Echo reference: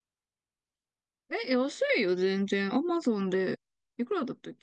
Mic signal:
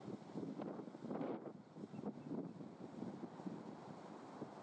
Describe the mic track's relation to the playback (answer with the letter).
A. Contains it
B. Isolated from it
B